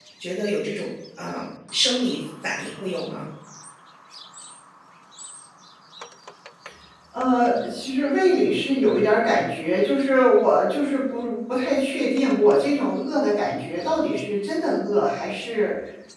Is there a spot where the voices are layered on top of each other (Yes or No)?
No